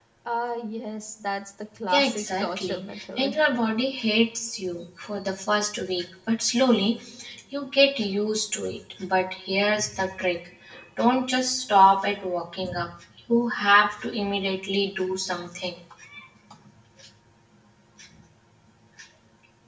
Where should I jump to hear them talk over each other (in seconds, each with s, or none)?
1.9 s